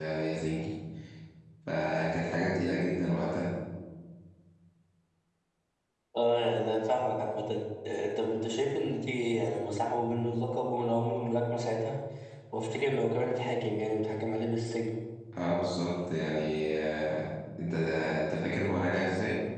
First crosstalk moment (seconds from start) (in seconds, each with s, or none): none